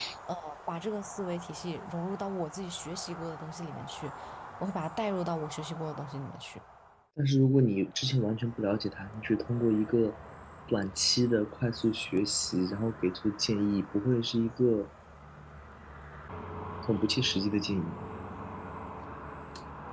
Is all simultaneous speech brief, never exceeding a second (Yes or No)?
Yes